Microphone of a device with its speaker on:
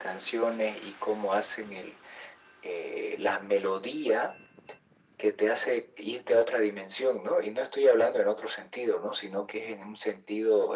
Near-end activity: none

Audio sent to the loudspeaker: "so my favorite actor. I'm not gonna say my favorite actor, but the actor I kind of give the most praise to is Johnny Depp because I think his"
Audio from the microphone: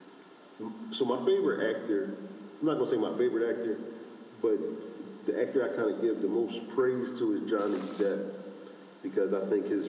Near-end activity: none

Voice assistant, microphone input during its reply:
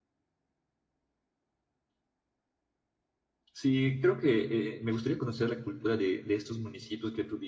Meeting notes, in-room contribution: present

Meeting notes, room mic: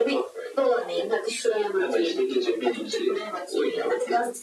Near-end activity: none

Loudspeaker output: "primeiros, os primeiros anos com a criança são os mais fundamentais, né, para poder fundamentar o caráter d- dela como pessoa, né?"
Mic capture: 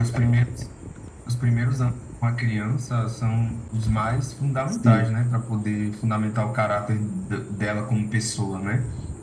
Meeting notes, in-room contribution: present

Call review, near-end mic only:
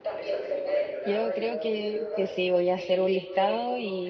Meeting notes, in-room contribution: present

